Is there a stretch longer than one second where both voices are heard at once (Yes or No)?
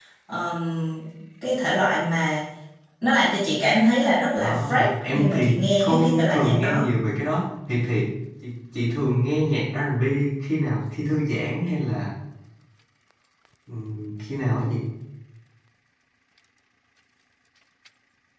Yes